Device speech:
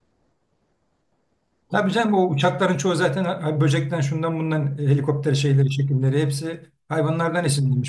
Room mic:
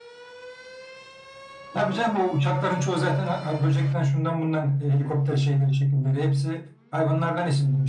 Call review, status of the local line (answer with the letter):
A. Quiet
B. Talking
A